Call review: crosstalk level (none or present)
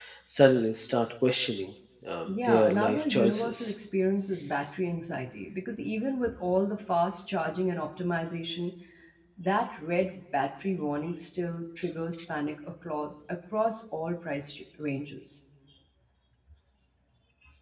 present